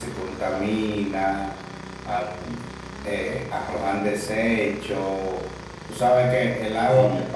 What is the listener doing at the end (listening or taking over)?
listening